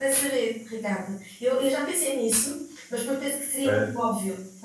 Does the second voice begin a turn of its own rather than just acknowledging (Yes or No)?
No